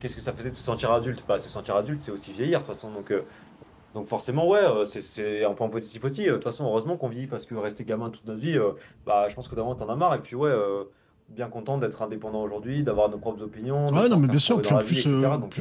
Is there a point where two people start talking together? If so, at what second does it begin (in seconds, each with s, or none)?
13.9 s